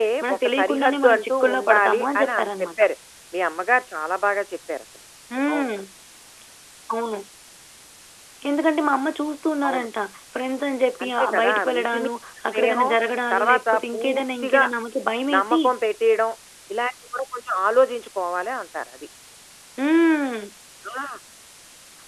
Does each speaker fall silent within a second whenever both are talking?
No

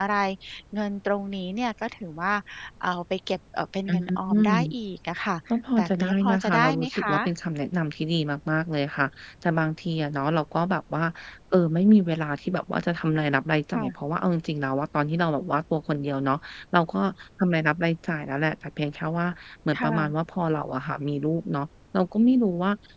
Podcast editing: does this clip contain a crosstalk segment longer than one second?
Yes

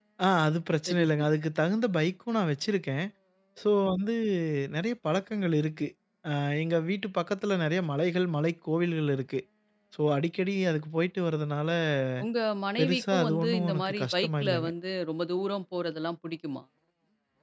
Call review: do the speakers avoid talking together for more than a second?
No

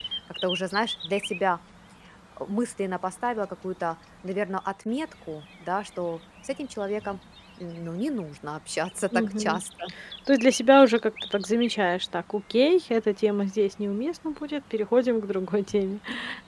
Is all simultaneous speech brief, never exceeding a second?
Yes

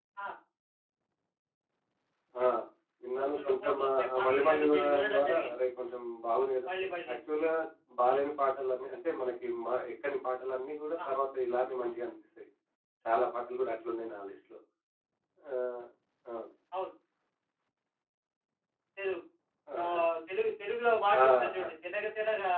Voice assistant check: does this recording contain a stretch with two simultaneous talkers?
Yes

